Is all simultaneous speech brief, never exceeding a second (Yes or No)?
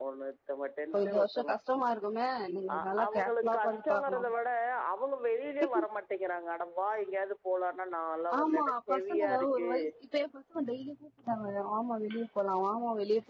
No